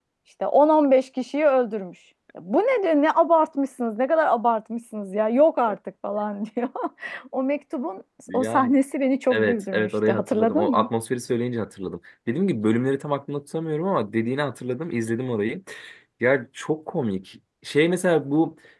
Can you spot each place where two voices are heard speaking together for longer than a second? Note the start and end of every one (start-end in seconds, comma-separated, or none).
9.3-10.9